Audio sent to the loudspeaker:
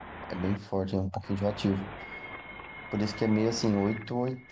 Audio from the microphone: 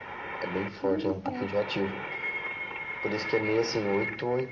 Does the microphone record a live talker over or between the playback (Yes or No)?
Yes